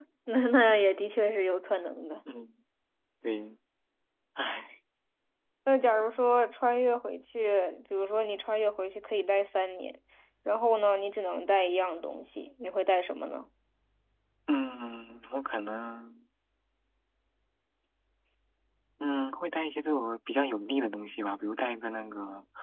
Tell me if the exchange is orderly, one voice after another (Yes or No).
Yes